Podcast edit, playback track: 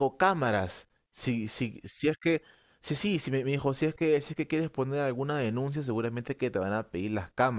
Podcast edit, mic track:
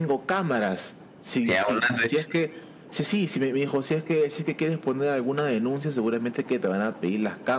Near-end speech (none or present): present